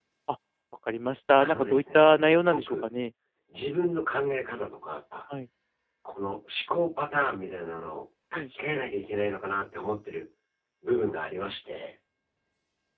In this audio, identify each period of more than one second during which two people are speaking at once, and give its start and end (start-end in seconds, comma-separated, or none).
1.4-2.9